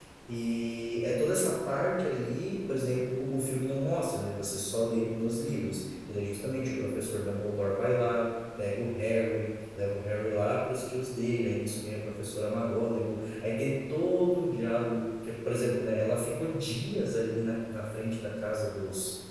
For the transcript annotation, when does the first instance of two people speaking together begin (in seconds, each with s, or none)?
none